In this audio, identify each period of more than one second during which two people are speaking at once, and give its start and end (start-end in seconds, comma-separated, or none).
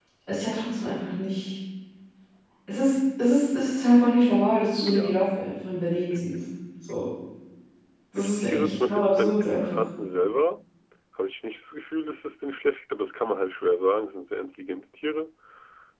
8.2-9.9